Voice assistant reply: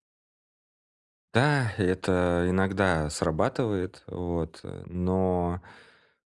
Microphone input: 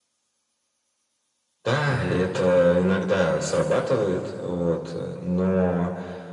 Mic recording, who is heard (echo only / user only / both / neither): both